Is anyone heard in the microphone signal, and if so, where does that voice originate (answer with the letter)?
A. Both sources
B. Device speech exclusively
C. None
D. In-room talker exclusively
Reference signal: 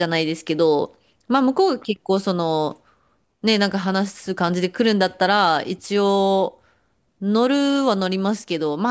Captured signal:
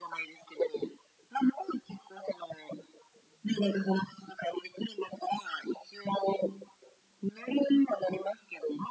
B